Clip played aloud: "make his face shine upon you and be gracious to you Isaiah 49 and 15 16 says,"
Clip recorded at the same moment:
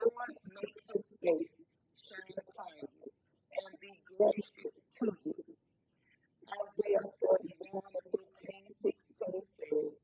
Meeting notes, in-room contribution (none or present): none